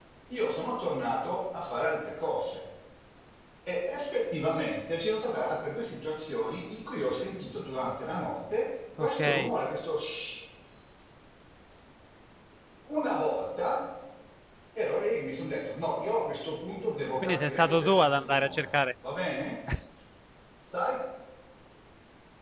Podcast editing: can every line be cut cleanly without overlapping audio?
No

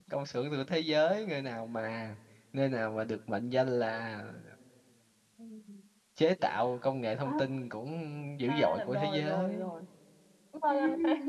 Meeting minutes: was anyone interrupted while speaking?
Yes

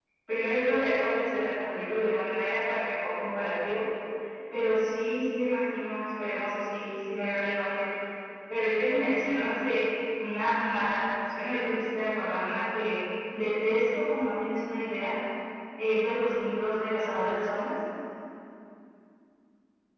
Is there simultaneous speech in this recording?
No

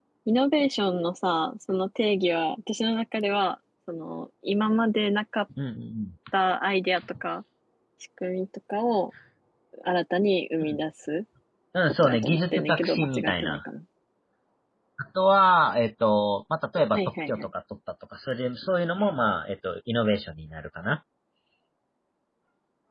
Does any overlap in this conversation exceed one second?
Yes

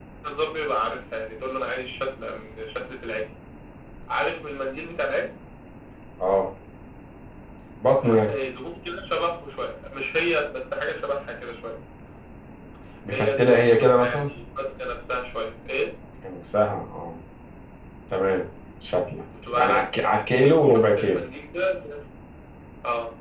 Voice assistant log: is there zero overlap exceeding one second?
No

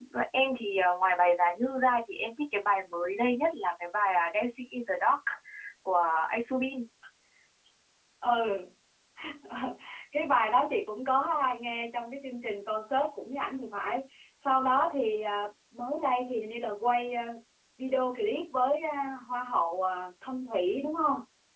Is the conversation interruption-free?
Yes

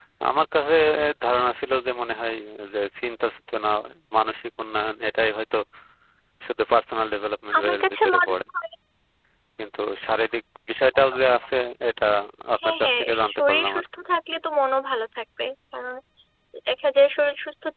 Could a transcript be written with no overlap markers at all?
No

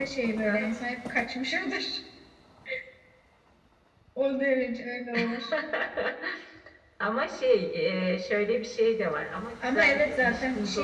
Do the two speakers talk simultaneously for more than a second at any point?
Yes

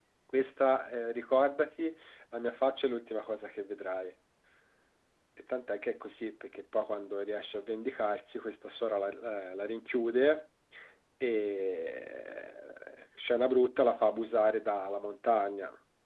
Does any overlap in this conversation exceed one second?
No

